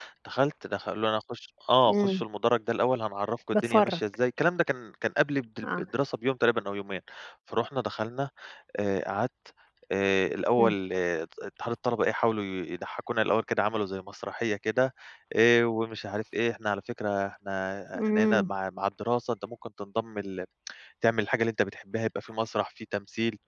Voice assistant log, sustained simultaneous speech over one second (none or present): none